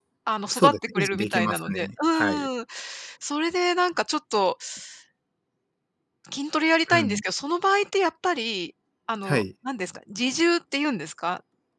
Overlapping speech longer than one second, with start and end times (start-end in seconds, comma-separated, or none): 0.5-2.5